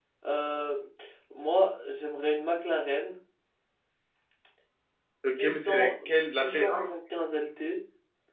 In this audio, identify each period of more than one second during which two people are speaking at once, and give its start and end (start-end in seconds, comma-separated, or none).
5.3-6.9